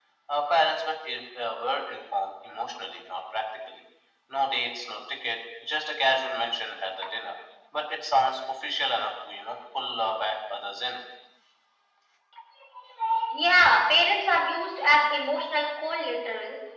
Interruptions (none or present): none